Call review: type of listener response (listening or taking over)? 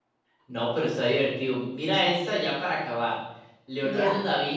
listening